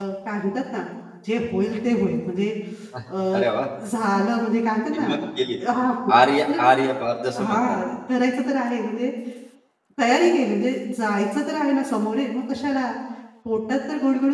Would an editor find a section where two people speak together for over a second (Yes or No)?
No